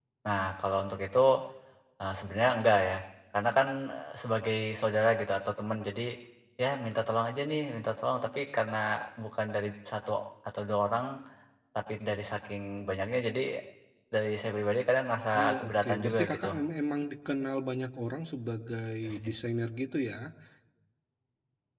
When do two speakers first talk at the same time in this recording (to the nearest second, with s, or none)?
15 s